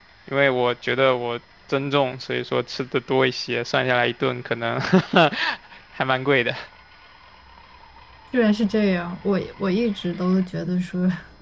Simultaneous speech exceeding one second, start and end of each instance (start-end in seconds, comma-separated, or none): none